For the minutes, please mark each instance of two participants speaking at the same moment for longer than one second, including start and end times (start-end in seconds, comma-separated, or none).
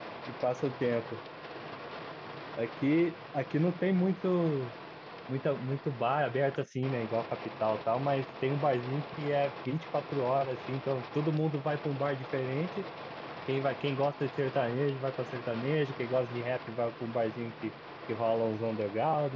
none